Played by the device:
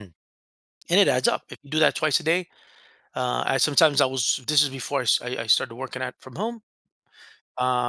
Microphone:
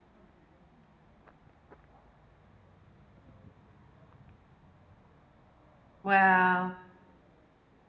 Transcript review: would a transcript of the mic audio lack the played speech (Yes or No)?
Yes